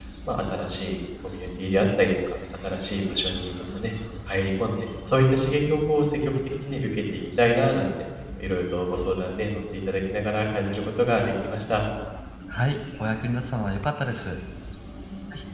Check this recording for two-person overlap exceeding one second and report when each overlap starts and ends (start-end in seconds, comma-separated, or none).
none